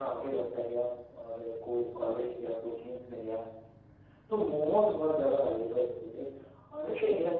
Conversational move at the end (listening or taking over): listening